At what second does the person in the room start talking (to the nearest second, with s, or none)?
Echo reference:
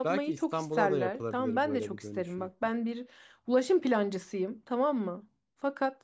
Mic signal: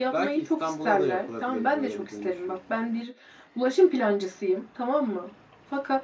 none